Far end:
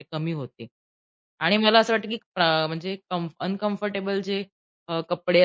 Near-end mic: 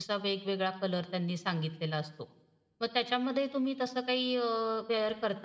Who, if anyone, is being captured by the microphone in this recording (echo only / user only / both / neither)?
user only